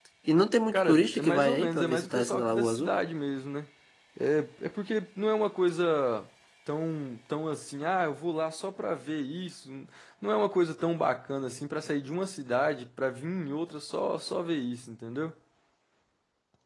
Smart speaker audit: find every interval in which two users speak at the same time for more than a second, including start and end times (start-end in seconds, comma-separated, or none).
0.7-2.9